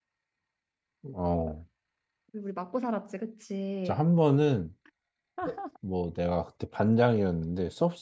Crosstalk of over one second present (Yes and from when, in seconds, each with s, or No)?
No